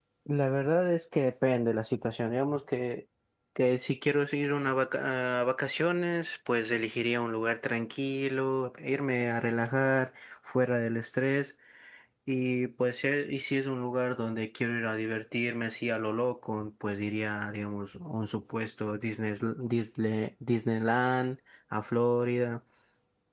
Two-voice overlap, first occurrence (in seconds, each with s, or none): none